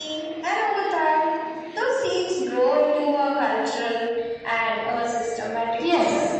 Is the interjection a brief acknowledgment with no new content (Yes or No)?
No